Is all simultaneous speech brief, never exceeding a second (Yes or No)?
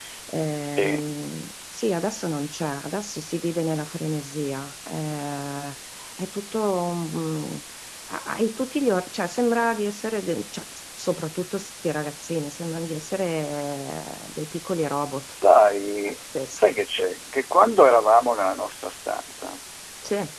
Yes